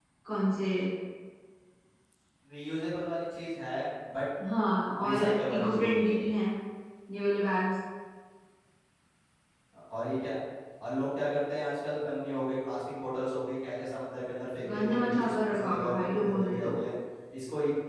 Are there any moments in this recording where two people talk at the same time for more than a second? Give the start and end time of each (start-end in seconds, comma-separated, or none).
5.1-6.3, 14.7-16.8